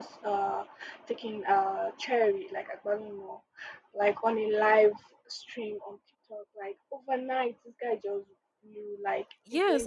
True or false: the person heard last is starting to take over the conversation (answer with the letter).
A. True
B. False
A